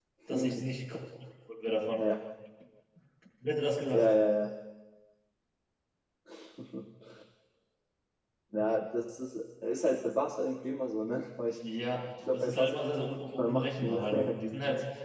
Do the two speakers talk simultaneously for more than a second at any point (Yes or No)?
Yes